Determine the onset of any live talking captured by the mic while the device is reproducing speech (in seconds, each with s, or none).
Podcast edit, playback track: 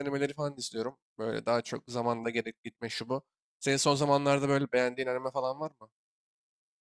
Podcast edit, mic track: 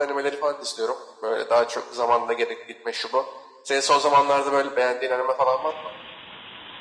none